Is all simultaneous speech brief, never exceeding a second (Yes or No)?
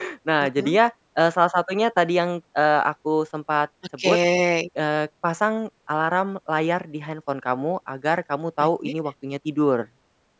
Yes